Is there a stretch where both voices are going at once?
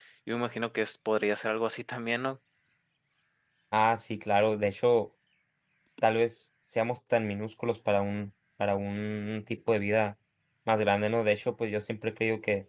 No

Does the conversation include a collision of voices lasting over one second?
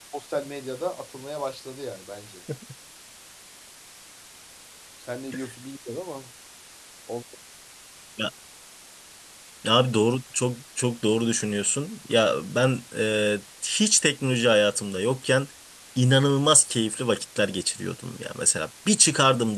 No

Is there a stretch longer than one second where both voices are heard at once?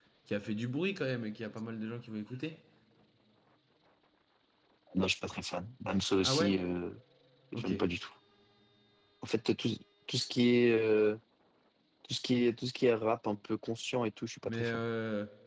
No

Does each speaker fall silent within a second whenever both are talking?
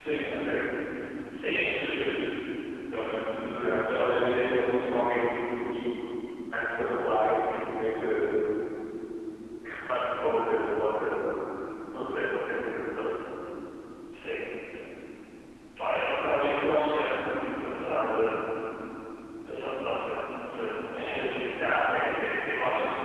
No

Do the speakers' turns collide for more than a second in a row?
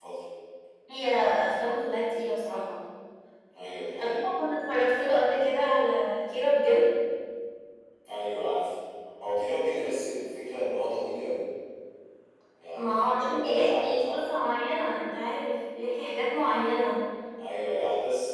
Yes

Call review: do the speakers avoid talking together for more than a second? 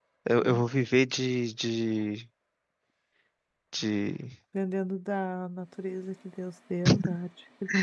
Yes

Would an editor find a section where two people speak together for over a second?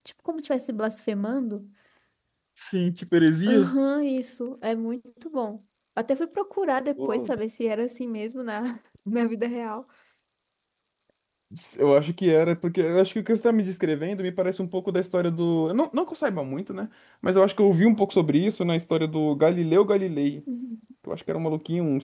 No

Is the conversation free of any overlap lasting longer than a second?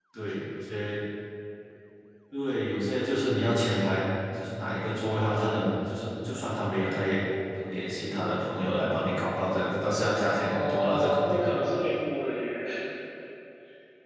No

